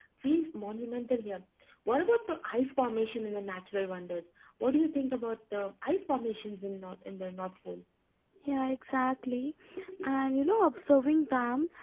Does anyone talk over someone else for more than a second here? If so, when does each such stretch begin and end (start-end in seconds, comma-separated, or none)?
none